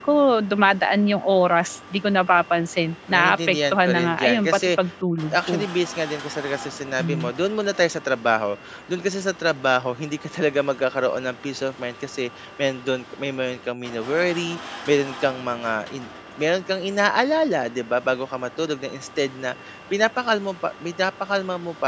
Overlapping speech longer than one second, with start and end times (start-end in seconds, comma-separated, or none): 3.1-4.6